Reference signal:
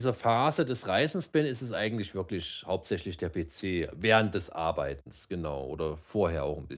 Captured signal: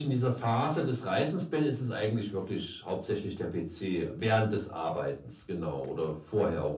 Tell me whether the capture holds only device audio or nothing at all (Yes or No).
Yes